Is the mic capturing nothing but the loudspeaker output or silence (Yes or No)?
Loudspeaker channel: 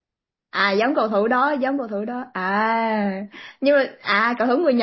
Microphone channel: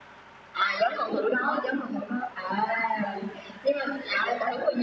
Yes